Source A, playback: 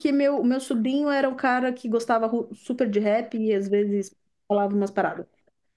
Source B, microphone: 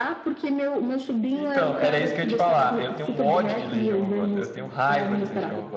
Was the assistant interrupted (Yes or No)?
Yes